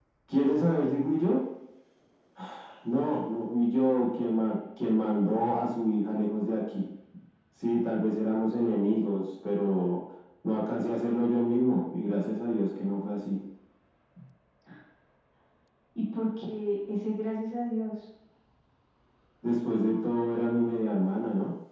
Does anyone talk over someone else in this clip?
No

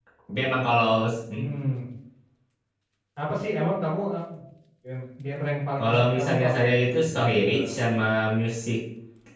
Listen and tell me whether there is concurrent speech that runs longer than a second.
Yes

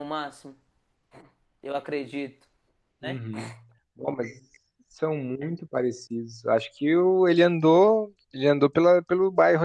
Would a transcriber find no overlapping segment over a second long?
Yes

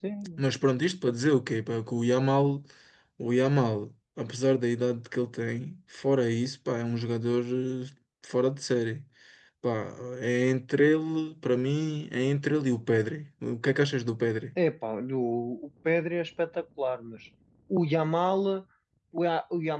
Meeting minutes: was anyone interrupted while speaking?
No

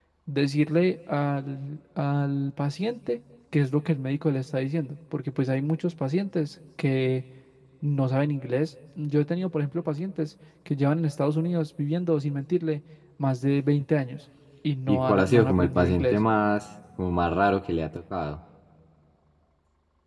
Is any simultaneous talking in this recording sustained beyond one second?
Yes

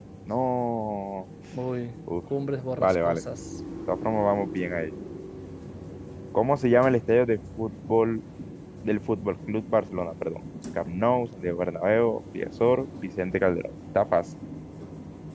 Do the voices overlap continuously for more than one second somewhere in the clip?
No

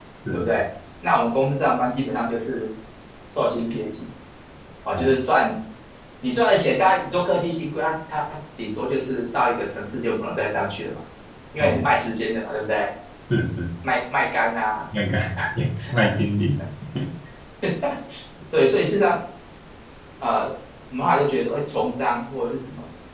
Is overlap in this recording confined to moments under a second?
Yes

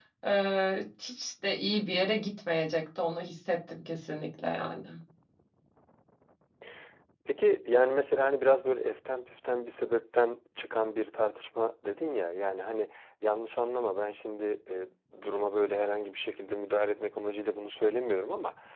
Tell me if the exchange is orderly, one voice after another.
Yes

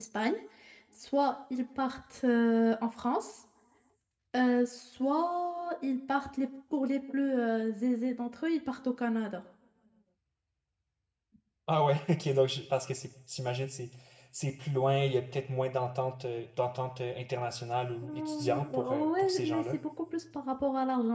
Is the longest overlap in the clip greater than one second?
Yes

